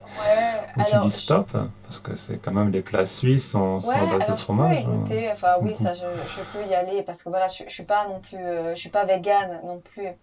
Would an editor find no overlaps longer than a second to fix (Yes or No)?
No